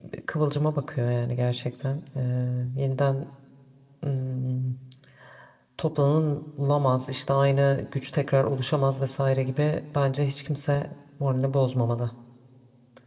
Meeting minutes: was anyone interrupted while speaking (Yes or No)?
No